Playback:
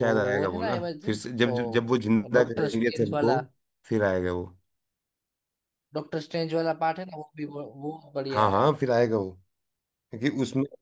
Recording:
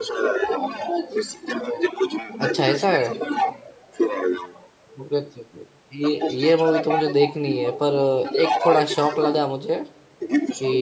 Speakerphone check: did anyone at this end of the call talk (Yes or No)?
Yes